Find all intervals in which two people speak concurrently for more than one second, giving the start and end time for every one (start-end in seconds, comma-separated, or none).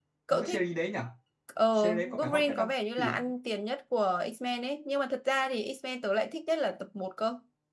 1.7-3.1